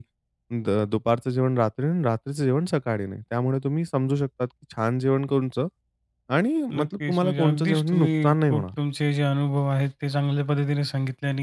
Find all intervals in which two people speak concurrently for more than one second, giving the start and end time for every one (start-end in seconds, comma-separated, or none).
6.7-8.6